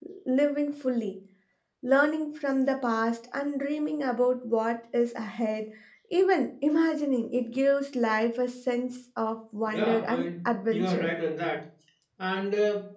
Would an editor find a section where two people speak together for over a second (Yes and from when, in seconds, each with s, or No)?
Yes, from 9.7 s